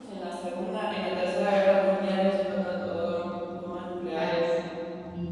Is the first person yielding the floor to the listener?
Yes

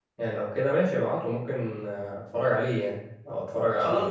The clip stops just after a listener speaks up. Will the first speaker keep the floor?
No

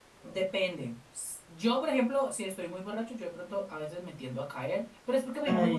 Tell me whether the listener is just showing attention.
Yes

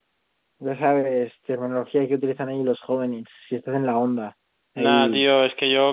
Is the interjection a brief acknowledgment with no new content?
No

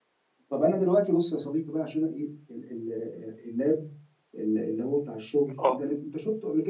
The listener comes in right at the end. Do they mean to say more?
No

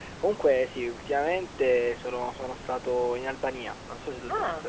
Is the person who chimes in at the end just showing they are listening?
No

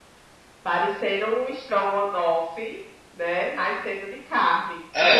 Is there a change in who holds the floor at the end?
Yes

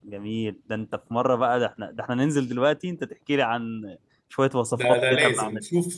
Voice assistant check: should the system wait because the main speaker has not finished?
No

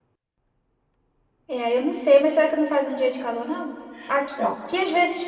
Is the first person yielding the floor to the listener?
No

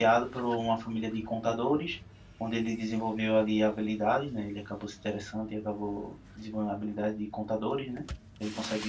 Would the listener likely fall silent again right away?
Yes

